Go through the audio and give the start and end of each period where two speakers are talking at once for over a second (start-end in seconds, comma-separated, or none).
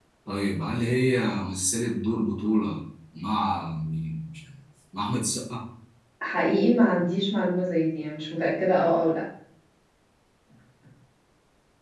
none